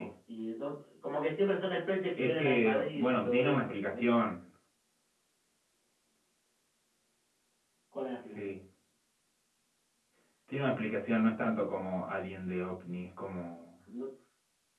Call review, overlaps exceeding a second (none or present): present